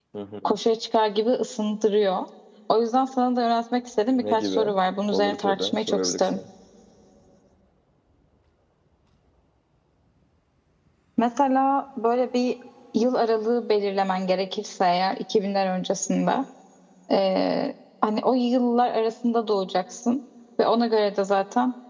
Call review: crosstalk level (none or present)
present